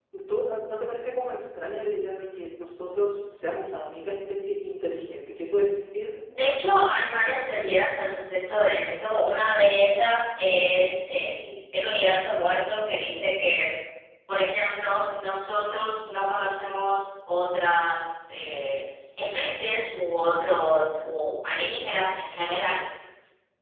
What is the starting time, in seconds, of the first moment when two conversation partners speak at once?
none

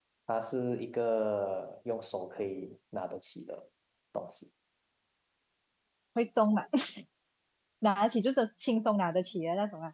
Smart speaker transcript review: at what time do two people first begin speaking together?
none

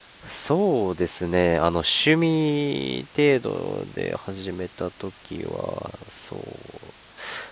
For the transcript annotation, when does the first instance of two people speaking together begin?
none

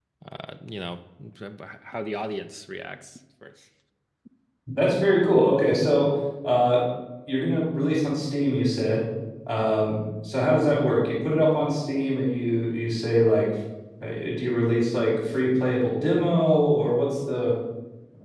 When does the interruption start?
none

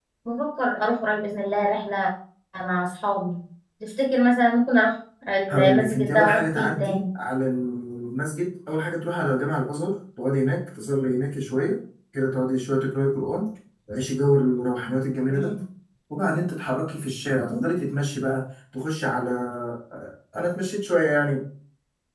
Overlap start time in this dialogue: 5.5 s

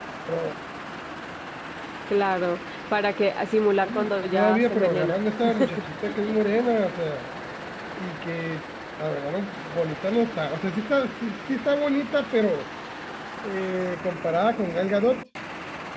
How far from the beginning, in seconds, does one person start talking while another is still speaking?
3.8 s

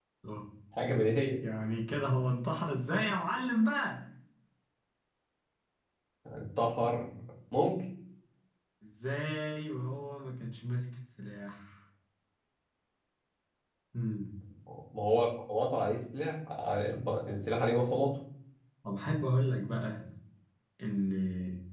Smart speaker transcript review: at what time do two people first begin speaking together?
none

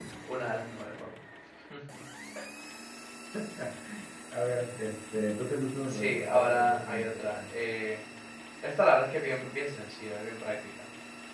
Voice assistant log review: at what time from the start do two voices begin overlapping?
5.8 s

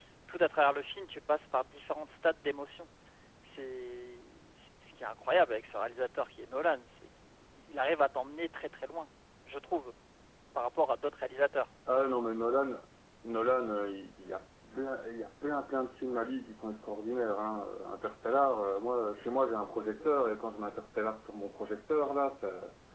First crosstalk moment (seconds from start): none

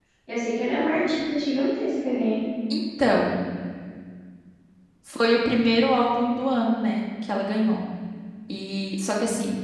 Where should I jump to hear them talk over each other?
none

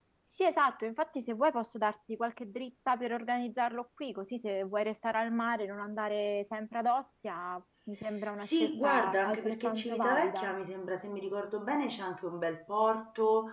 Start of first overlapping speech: 8.4 s

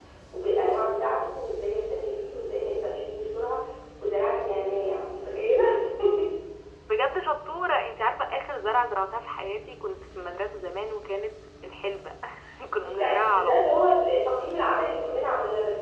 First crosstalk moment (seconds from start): 12.8 s

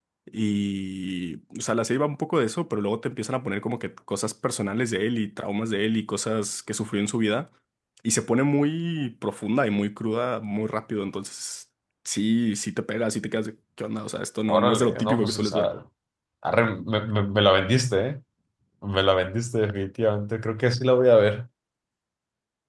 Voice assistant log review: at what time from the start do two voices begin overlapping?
14.5 s

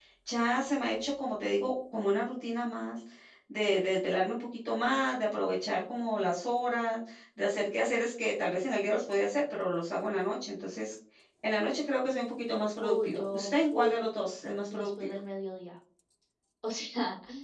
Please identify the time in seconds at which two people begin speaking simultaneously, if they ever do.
12.8 s

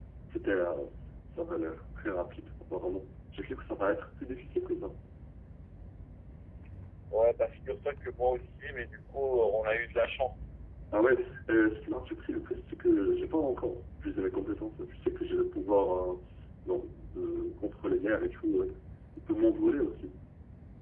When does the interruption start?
none

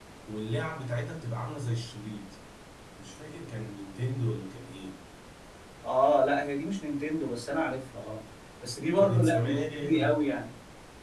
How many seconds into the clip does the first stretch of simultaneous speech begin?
9.0 s

